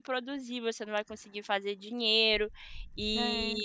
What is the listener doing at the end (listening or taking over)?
listening